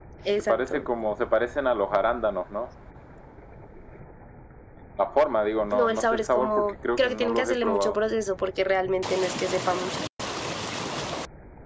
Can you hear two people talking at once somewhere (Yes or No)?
Yes